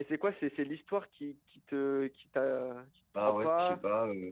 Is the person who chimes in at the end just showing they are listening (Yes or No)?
No